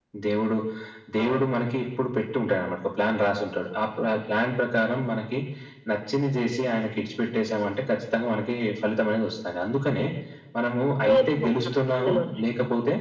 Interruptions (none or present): present